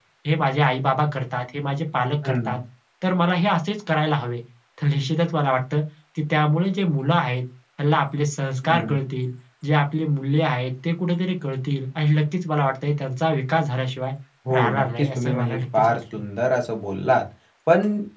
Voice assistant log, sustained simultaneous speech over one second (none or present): present